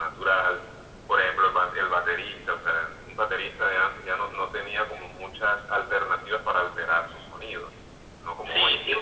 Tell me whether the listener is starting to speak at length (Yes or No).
Yes